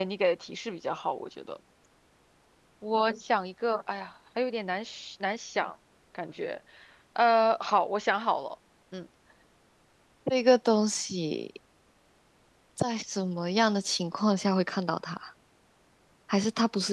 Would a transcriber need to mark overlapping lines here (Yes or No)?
No